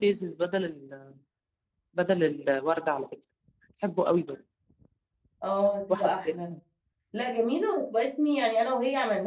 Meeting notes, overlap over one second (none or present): none